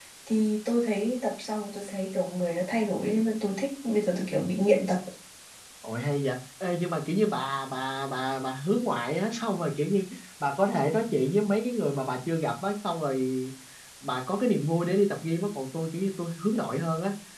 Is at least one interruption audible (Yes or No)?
No